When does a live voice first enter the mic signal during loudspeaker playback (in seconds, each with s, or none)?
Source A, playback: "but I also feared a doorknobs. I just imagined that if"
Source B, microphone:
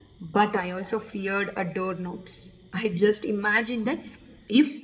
none